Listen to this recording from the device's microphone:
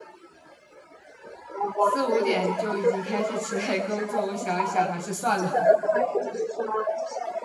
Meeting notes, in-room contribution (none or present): present